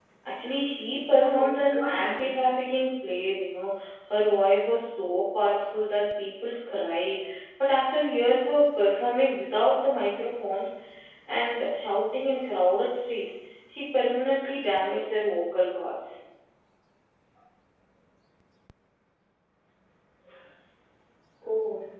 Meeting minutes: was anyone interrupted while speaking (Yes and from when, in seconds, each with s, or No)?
Yes, from 1.1 s